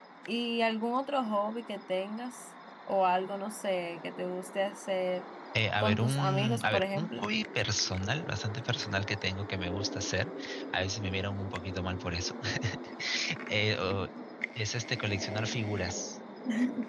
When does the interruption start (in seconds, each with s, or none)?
5.8 s